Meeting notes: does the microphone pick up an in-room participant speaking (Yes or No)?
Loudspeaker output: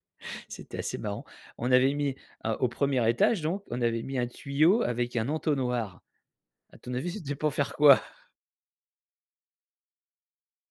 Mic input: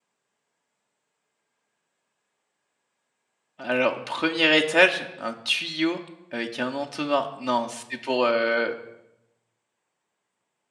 Yes